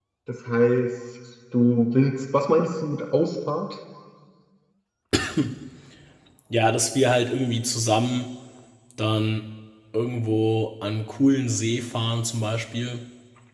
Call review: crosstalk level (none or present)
none